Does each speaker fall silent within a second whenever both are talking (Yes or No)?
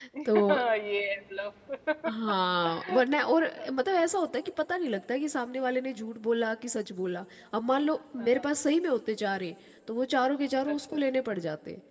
Yes